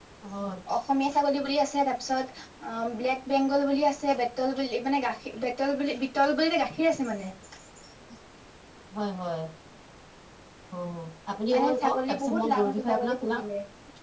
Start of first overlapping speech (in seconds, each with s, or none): 11.5 s